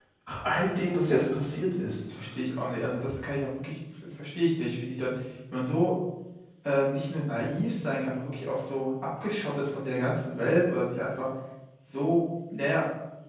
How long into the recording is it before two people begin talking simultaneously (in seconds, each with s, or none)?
none